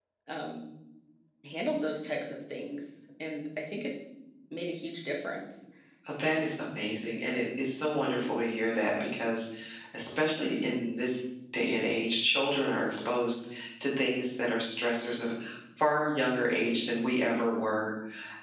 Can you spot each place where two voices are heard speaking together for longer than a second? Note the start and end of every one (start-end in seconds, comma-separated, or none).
none